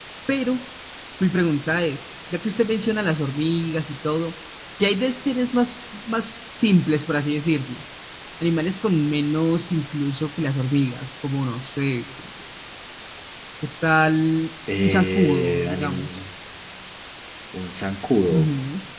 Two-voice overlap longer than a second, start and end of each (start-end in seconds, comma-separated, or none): 14.8-16.1